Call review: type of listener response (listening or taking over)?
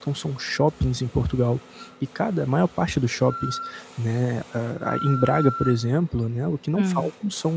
listening